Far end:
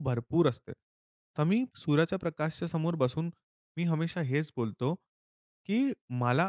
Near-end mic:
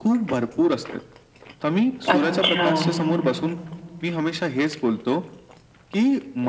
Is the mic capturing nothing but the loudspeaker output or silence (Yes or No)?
No